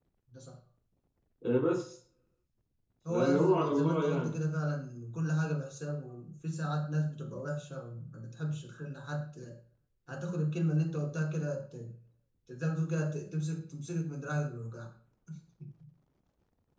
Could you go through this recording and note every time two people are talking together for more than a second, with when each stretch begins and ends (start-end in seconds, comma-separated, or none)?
3.1-4.3